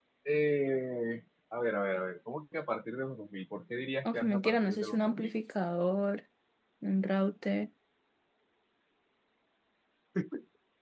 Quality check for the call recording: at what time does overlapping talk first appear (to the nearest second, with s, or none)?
4 s